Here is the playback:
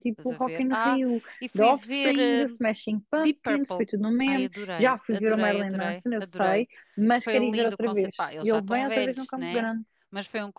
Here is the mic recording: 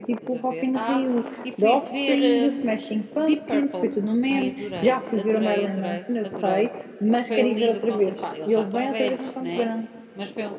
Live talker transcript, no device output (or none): none